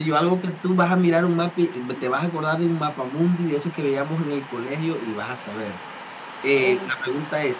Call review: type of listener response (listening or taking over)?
listening